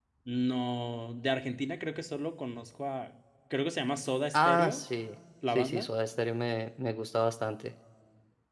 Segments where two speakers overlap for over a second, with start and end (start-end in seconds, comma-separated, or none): none